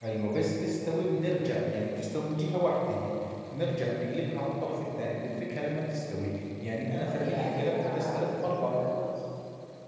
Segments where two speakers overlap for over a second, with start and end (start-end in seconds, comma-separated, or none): 7.1-8.8